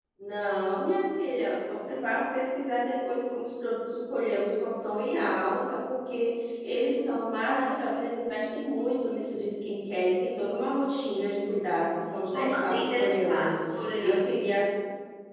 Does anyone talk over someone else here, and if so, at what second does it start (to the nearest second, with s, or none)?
12 s